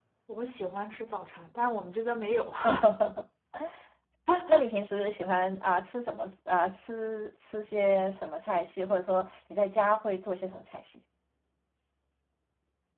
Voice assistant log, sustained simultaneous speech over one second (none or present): none